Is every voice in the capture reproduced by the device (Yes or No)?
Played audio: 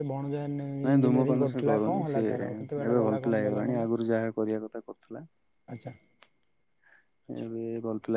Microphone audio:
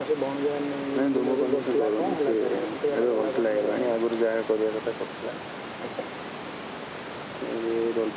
Yes